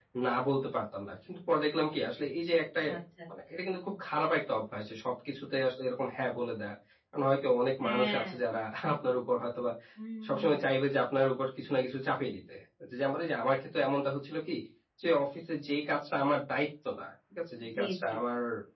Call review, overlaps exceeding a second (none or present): none